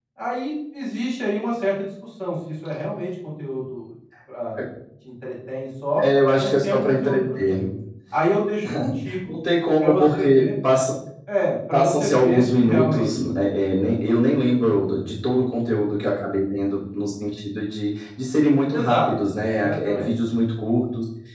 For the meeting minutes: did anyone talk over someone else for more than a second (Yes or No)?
Yes